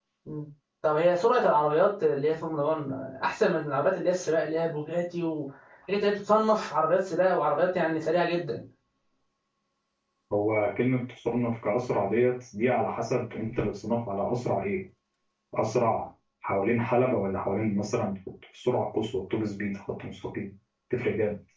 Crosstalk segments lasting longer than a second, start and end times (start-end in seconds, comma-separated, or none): none